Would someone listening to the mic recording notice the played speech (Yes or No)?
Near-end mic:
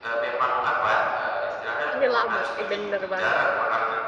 Yes